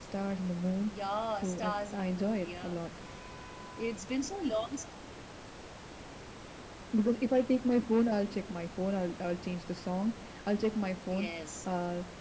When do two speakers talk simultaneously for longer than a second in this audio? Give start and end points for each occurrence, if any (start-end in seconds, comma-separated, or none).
1.4-2.8